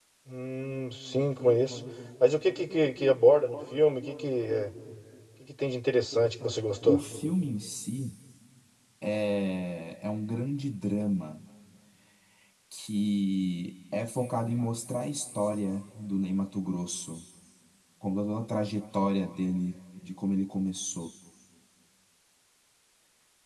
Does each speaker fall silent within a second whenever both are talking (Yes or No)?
Yes